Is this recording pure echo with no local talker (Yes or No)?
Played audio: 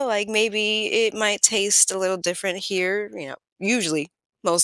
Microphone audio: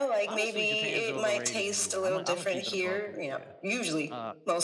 No